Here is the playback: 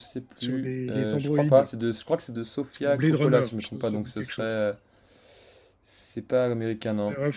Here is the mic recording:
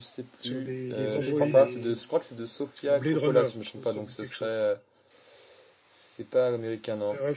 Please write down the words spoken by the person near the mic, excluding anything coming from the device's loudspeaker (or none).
Il parlait des,